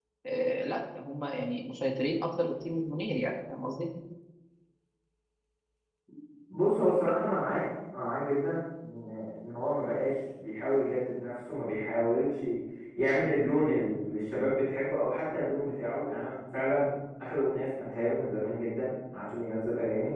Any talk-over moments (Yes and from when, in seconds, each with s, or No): No